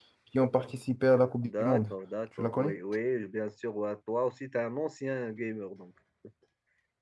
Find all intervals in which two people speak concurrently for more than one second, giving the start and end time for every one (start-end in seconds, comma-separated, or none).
none